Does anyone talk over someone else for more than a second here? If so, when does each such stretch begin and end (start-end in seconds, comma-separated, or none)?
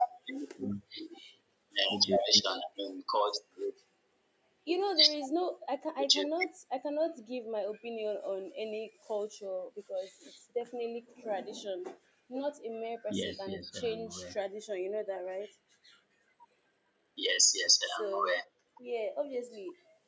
13.1-14.3